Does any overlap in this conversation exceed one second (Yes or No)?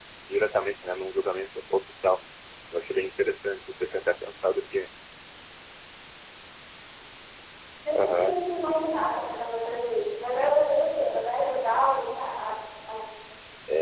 No